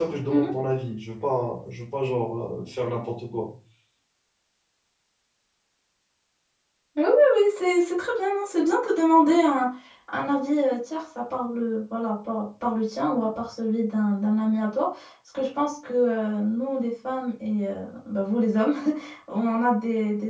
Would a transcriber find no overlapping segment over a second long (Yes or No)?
Yes